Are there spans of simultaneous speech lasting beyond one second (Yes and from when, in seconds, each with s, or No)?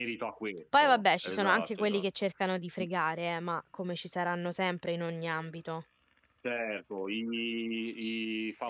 Yes, from 0.8 s